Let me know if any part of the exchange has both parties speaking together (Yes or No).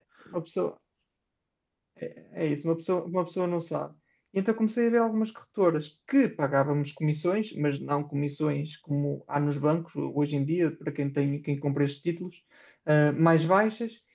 No